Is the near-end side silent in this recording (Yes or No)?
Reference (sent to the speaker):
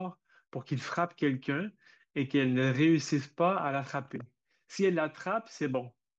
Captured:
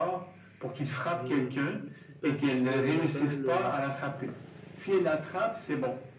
No